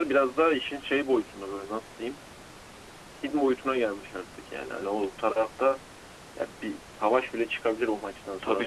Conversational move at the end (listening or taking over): taking over